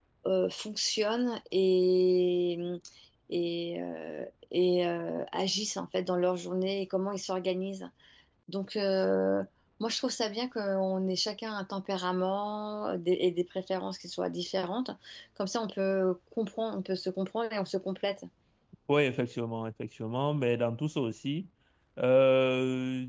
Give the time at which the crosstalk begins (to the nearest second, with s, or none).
none